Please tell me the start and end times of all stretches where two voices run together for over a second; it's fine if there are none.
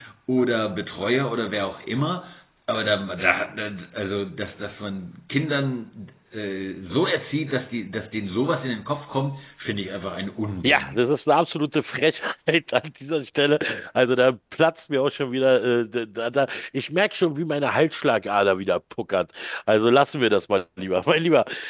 none

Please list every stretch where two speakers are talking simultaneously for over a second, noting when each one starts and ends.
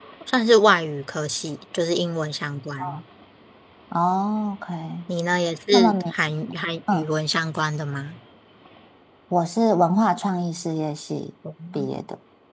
none

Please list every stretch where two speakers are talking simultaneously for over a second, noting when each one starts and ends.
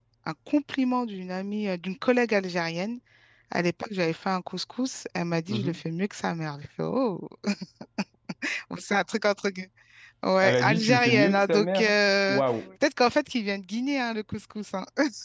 10.4-11.9

